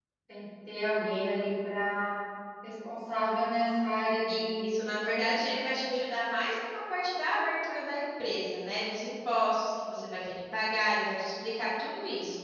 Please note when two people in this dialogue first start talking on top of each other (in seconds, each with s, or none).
4.3 s